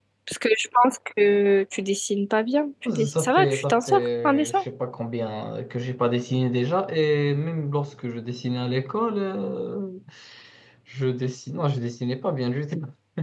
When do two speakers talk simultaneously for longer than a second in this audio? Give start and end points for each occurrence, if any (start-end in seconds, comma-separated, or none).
2.8-4.6